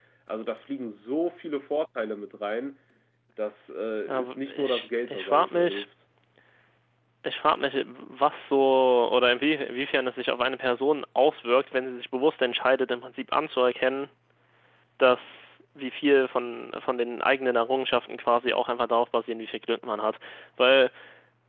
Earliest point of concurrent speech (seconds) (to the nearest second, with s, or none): 4 s